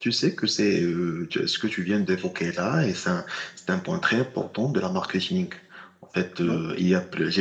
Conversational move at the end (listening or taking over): listening